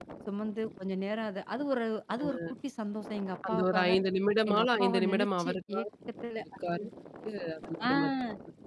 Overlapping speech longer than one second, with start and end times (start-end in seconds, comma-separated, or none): 4.5-5.8